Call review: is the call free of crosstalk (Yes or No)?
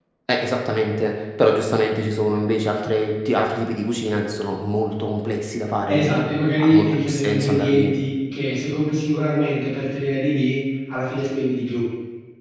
No